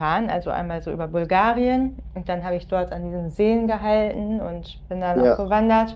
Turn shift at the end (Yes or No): No